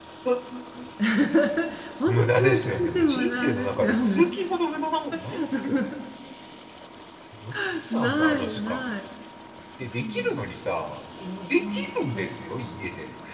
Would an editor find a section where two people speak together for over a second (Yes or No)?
Yes